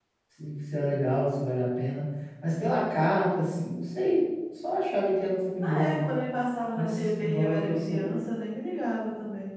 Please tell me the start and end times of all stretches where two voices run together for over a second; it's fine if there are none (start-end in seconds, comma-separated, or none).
6.7-8.2